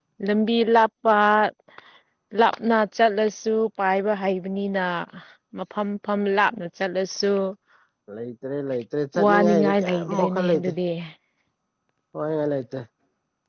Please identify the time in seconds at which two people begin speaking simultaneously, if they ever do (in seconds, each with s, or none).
9.1 s